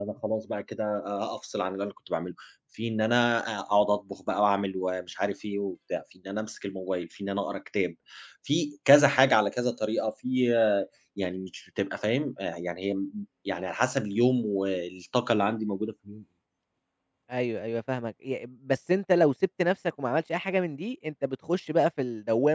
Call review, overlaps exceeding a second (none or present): none